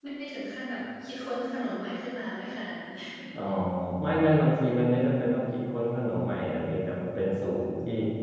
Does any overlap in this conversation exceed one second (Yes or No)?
No